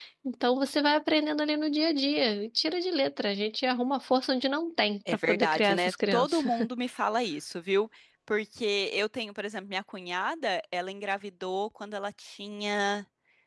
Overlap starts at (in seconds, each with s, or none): 5.1 s